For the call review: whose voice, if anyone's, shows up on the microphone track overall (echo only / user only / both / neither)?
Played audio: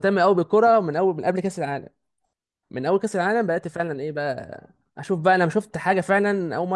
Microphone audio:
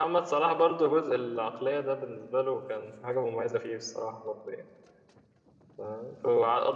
user only